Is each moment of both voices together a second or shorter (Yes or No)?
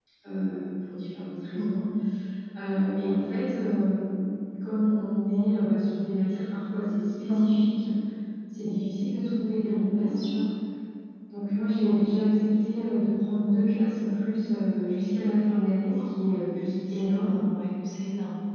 Yes